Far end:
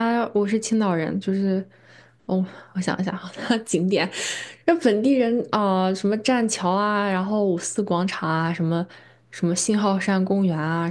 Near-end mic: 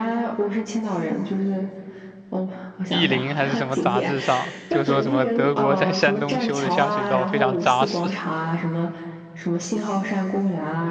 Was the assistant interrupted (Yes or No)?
Yes